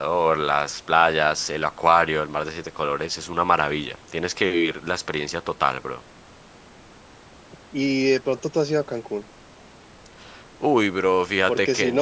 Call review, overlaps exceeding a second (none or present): none